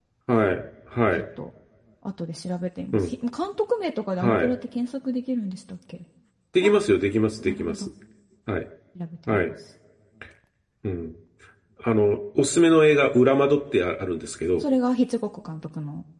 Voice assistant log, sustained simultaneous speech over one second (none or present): none